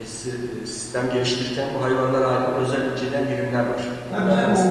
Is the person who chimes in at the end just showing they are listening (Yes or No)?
No